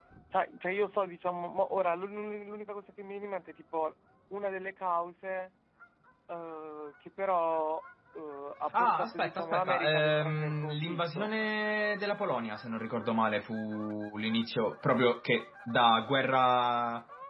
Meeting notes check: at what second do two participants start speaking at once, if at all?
8.7 s

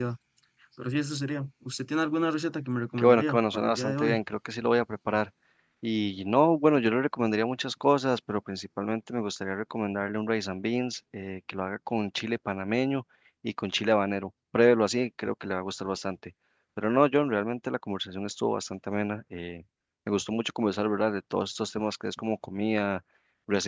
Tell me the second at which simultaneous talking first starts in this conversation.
3.0 s

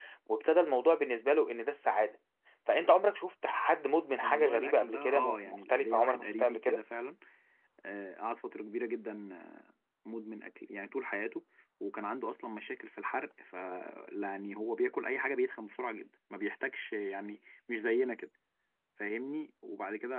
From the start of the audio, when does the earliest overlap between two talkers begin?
4.2 s

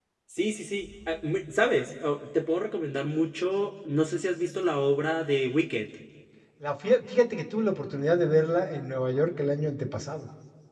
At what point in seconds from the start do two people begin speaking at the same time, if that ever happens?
none

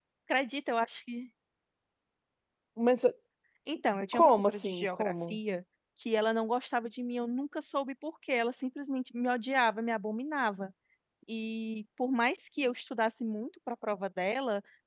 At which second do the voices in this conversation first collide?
4.1 s

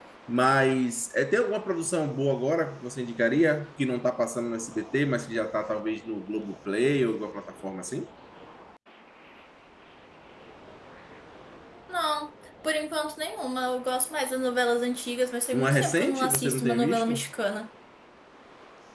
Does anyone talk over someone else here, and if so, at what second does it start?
15.5 s

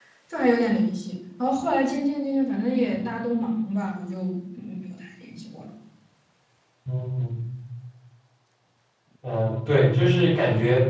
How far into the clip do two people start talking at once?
none

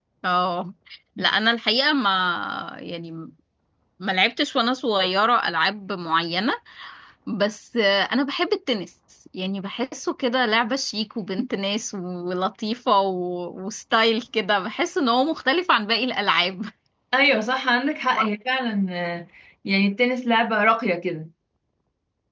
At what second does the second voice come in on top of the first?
none

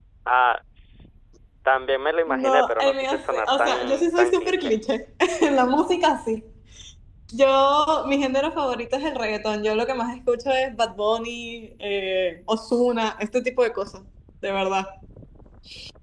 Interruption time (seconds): 2.3 s

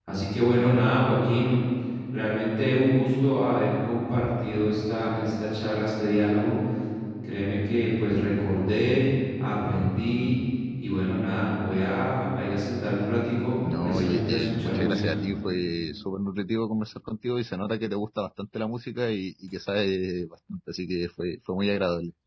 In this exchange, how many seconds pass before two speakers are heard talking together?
13.6 s

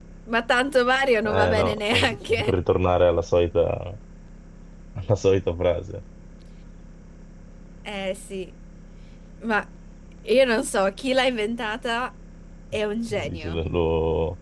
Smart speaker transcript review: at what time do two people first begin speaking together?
1.2 s

